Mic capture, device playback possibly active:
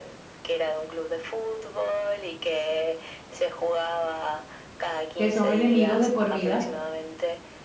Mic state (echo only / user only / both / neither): both